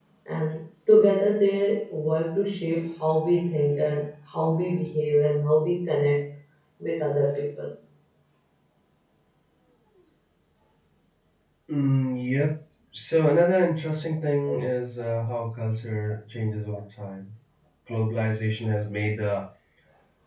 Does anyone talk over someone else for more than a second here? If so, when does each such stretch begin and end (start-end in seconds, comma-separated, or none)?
none